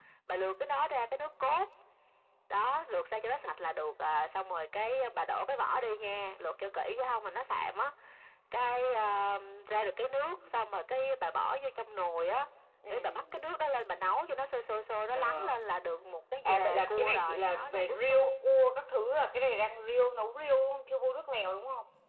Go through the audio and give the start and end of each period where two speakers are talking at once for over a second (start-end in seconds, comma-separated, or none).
16.4-18.3